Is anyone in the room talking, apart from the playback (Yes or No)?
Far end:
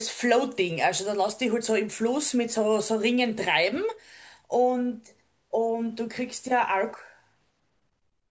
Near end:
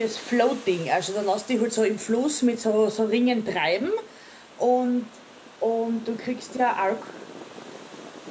No